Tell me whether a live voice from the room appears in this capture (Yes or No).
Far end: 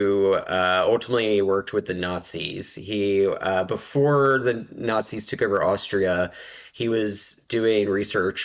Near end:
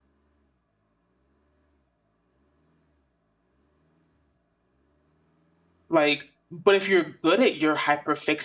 Yes